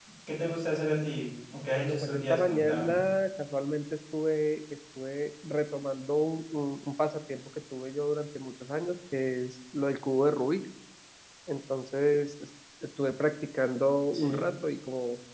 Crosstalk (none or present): present